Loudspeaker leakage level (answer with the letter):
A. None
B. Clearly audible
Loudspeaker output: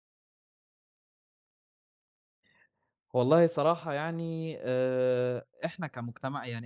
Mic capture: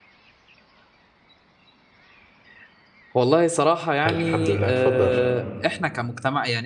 B